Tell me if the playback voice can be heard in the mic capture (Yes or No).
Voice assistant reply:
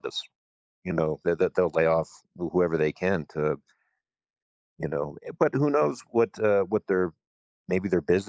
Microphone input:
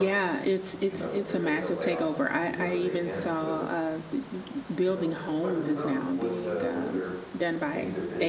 Yes